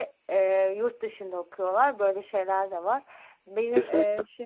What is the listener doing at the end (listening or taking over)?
listening